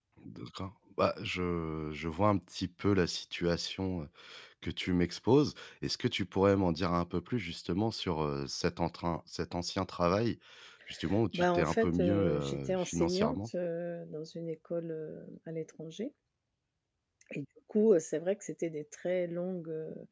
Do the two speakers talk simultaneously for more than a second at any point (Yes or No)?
Yes